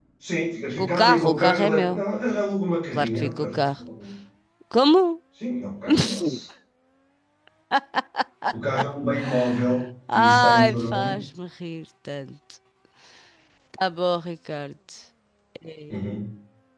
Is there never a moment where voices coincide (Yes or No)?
No